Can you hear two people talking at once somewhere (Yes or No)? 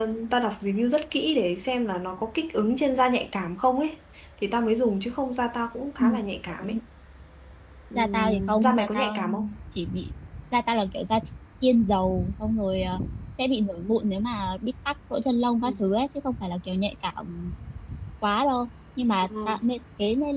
Yes